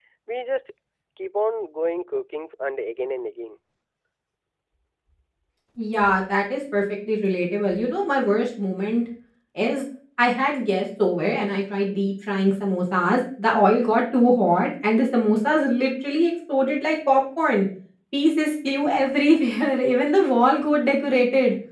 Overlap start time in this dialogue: none

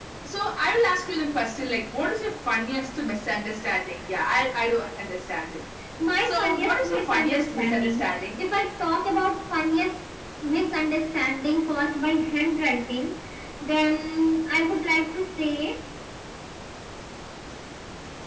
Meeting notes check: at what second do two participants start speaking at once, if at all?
6.2 s

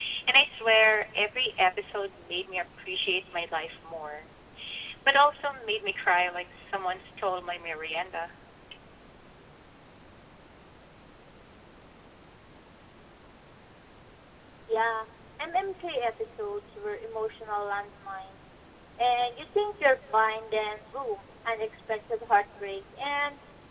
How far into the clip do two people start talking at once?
none

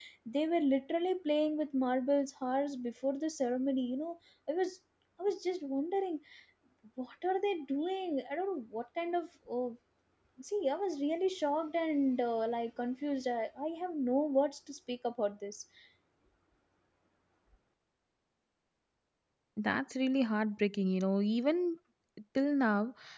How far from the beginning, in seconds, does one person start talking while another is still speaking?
none

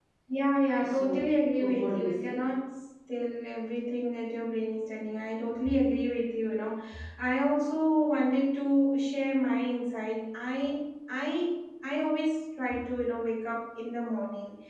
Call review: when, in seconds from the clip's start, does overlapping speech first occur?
0.8 s

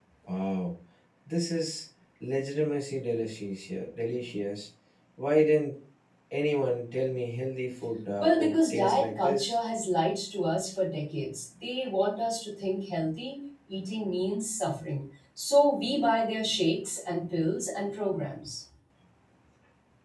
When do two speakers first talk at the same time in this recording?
8.2 s

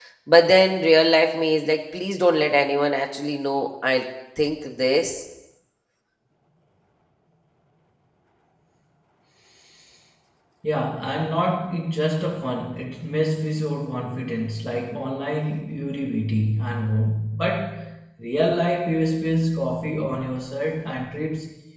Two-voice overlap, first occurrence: none

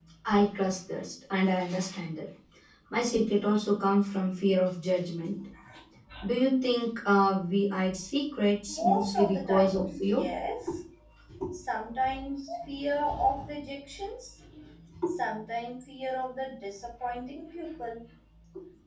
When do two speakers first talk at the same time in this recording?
8.7 s

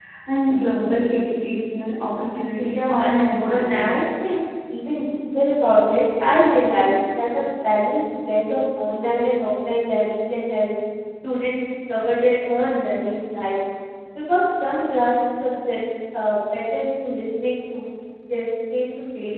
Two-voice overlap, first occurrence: 2.5 s

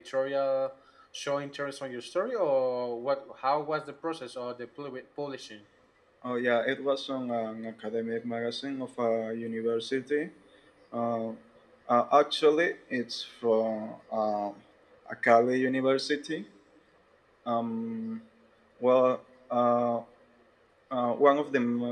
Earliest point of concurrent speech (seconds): none

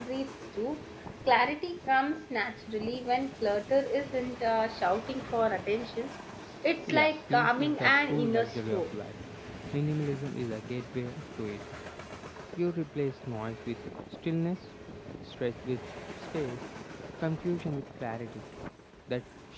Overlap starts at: 6.9 s

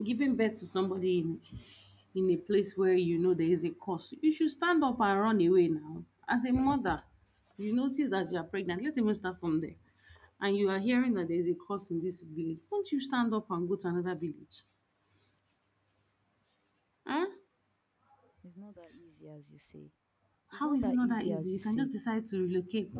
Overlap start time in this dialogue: 20.5 s

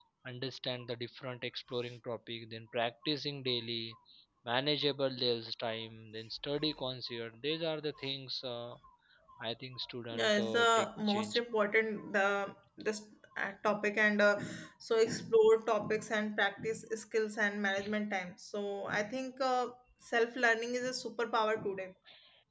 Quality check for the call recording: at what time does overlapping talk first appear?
10.1 s

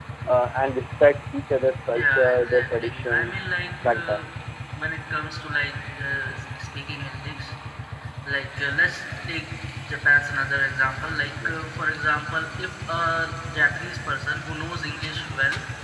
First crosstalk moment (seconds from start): 1.9 s

